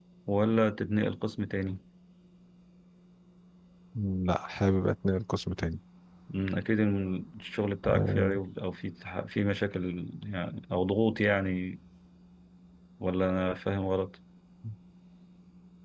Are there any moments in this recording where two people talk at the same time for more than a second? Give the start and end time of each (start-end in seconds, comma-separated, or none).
none